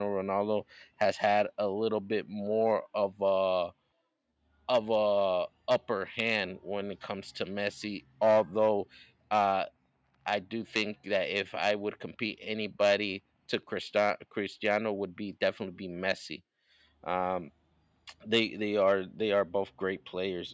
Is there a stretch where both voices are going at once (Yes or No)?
No